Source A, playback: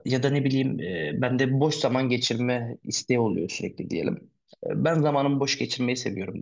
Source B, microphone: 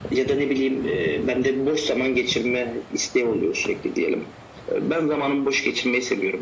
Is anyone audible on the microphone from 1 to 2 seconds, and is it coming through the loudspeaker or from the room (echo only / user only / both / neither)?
echo only